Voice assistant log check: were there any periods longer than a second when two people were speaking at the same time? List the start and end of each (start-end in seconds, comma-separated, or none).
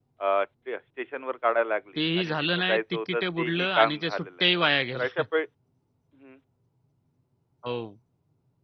2.0-4.4